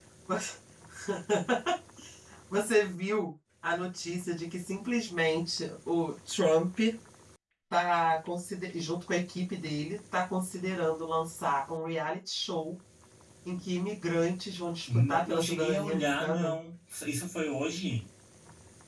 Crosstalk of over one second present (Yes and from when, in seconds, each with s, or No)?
Yes, from 14.9 s